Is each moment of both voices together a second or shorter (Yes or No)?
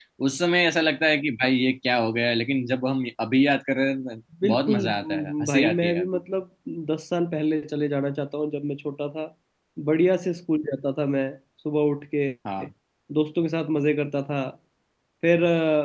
No